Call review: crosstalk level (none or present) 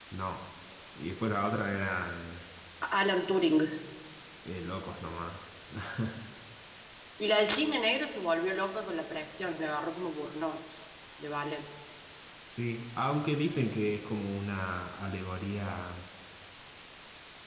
none